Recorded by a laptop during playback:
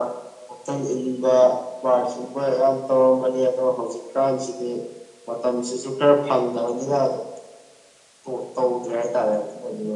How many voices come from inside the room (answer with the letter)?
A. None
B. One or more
A